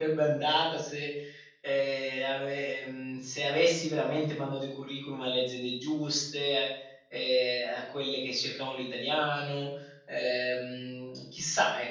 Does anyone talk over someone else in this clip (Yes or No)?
No